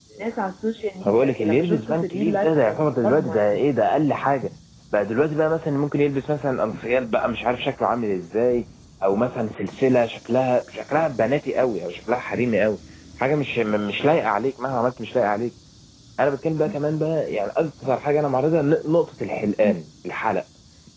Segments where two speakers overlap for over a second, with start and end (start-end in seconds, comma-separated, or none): 1.0-3.5